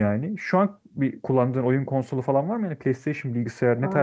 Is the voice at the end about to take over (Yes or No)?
Yes